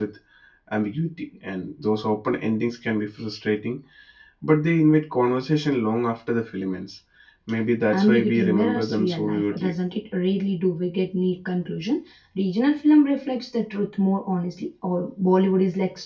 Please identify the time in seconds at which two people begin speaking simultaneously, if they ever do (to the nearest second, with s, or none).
8 s